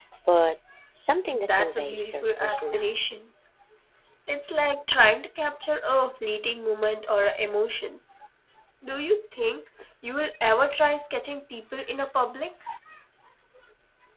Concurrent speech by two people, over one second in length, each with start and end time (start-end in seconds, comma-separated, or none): 1.3-3.2